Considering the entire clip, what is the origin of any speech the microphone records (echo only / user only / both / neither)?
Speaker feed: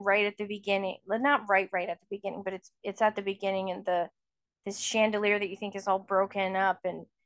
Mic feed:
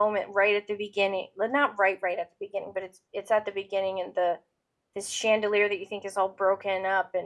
echo only